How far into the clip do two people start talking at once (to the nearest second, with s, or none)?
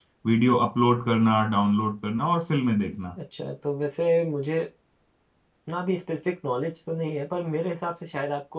none